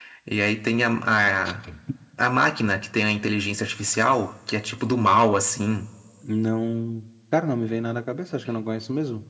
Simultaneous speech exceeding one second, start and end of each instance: none

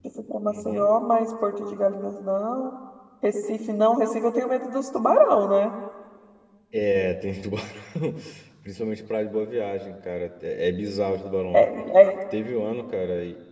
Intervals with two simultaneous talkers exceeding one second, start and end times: none

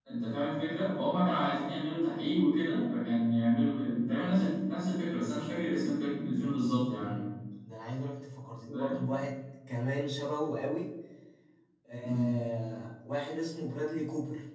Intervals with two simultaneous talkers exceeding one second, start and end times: none

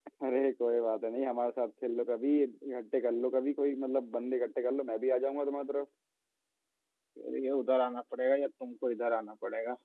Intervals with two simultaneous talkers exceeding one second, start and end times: none

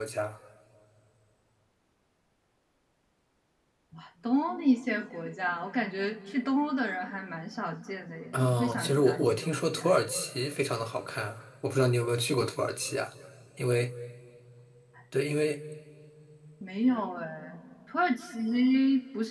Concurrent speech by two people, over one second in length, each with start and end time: 8.3-9.9

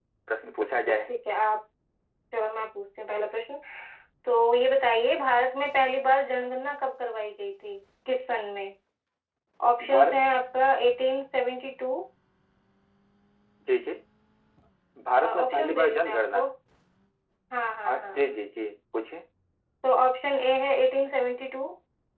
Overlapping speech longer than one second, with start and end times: 15.2-16.5

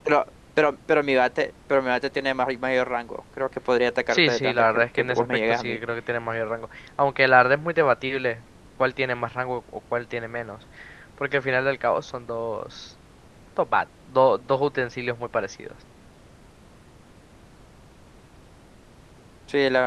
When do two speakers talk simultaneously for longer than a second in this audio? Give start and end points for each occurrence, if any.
4.1-5.8

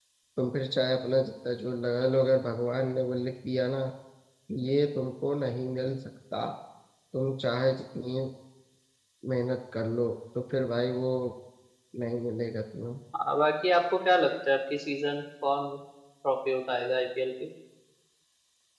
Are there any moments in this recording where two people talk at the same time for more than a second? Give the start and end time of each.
none

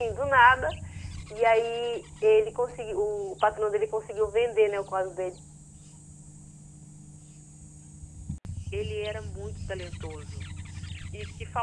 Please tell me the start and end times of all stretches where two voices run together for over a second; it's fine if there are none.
none

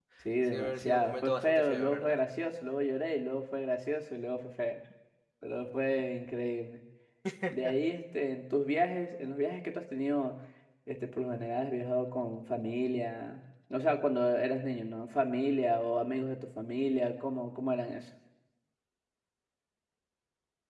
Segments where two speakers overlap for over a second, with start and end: 0.5-2.2

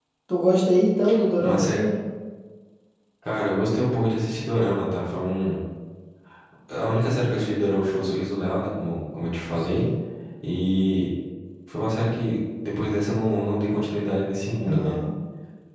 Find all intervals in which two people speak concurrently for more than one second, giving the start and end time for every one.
none

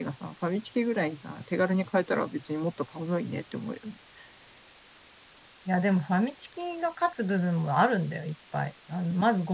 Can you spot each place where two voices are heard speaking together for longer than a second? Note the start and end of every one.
none

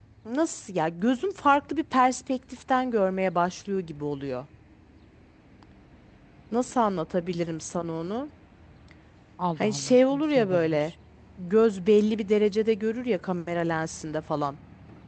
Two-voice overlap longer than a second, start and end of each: 9.6-10.8

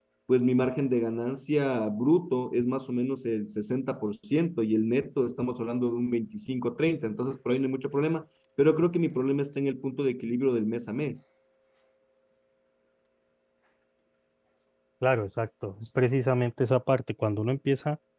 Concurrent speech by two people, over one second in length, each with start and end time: none

